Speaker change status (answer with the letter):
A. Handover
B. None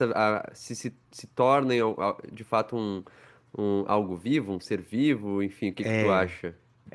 A